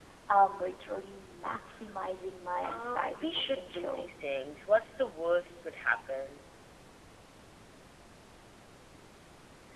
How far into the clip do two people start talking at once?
2.6 s

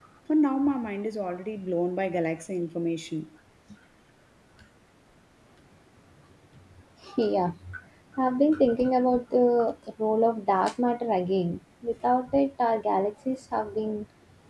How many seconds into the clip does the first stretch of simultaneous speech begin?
none

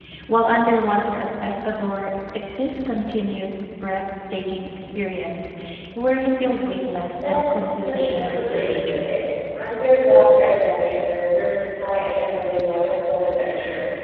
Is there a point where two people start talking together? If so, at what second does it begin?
7.2 s

